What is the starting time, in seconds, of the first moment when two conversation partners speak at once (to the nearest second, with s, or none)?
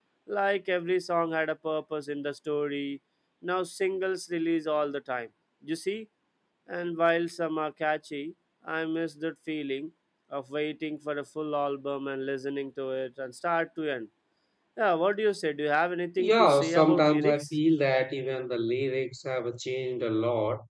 16 s